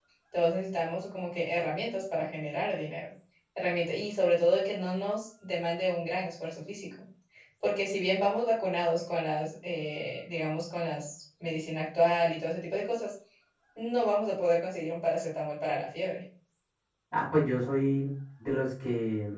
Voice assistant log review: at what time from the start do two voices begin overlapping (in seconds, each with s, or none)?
none